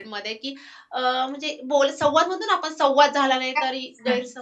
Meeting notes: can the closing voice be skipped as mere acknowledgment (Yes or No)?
No